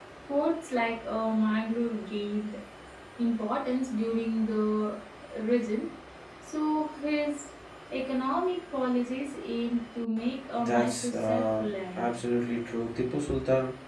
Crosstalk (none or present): present